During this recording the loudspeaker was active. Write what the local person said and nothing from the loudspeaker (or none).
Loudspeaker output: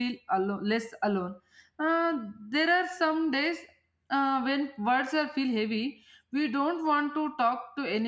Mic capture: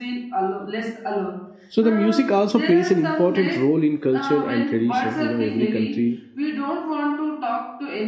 so the music also plays an important role in culture and tradition you know every country